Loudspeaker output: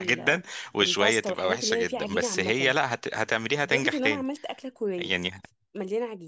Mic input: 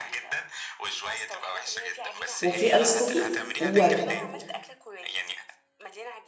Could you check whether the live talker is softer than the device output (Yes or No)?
No